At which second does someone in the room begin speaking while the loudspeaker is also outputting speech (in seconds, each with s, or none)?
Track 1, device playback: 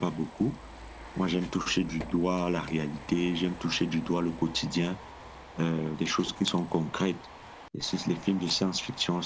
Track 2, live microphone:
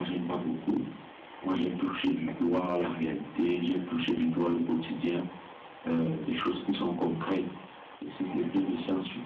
none